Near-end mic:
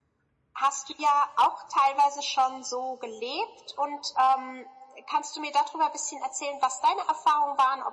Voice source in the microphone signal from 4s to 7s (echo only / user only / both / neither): echo only